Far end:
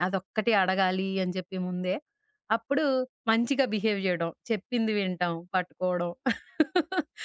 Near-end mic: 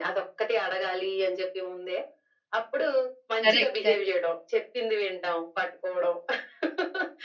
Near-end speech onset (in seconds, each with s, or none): 3.4 s